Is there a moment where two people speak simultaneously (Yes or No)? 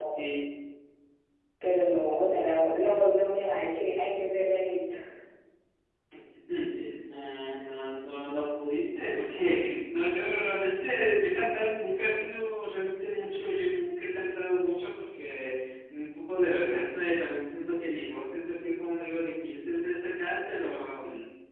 No